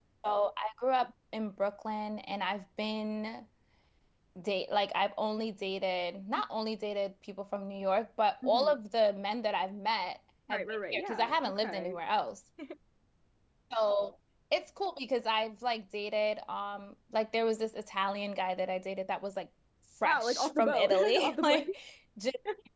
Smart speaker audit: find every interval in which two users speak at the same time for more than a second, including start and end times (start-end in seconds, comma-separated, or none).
10.5-12.0, 20.0-21.7